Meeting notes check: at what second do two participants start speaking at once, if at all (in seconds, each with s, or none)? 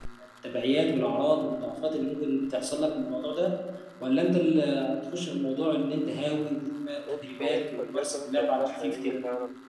7.1 s